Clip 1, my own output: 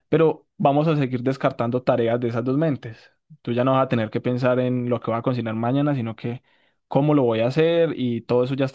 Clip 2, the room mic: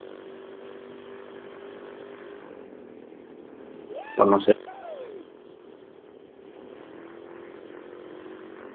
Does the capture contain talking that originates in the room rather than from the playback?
Yes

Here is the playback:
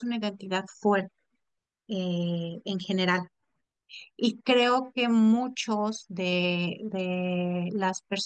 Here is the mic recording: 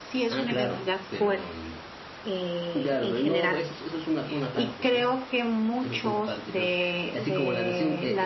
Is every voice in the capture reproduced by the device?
No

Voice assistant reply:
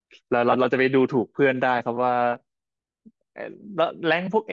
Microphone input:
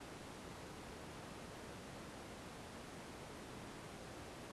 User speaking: No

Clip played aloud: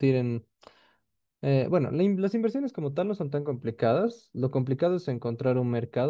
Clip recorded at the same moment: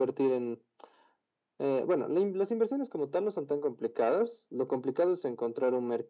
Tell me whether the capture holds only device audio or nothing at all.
Yes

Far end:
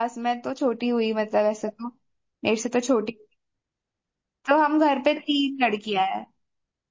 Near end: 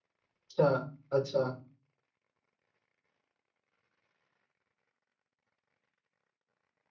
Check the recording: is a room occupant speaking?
Yes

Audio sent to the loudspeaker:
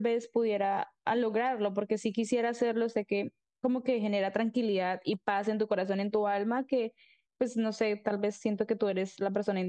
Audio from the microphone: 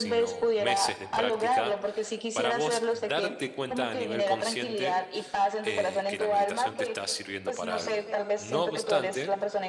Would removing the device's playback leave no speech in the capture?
No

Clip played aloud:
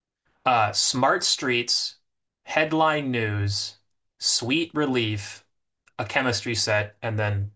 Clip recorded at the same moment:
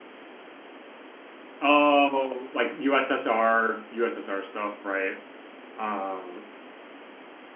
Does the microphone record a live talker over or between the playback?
Yes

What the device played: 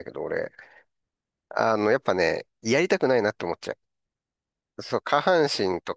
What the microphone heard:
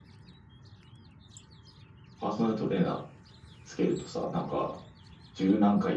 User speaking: Yes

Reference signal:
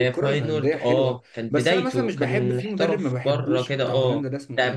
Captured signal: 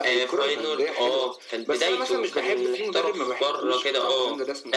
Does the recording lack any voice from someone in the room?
Yes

